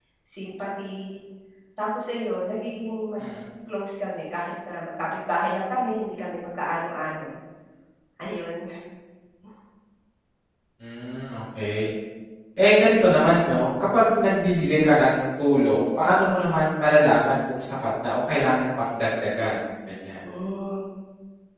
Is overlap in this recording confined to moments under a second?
Yes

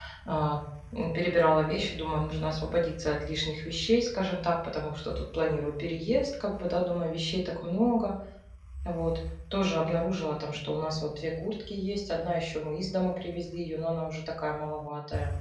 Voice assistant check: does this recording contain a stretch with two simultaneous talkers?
No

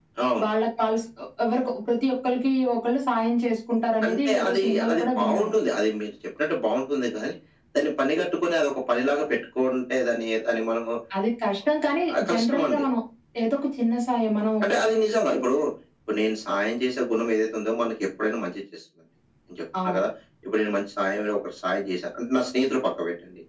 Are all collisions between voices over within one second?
No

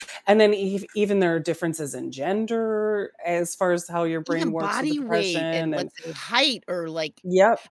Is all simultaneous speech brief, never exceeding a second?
No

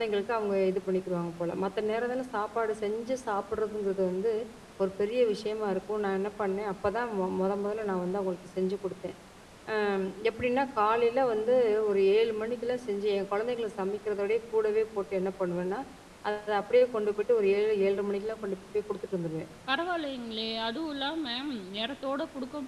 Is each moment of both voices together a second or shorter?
Yes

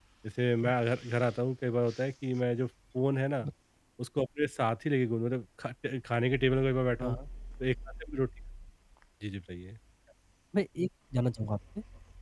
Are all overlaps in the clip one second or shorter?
Yes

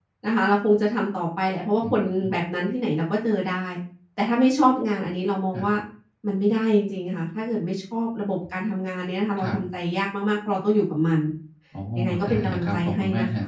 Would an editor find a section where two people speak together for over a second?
Yes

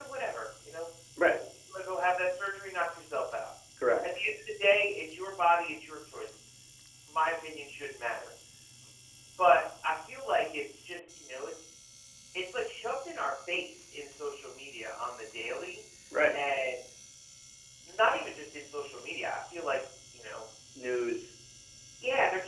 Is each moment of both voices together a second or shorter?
Yes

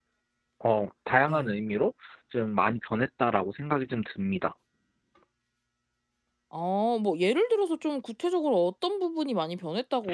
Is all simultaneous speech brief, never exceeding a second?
Yes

